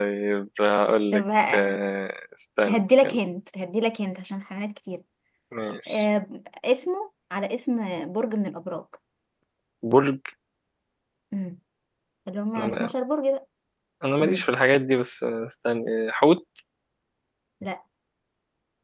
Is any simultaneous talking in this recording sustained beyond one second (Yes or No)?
No